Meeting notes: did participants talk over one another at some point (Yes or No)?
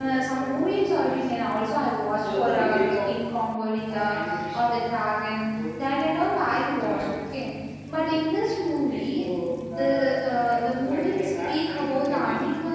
Yes